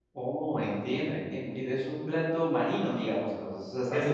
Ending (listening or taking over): taking over